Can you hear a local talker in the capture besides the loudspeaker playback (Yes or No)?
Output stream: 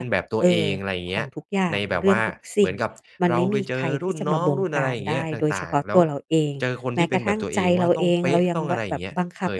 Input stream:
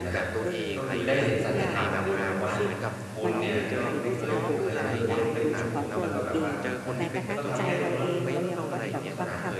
Yes